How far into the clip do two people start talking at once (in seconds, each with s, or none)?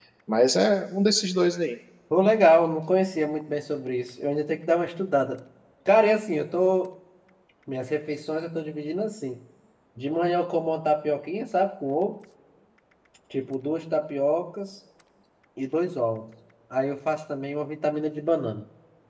none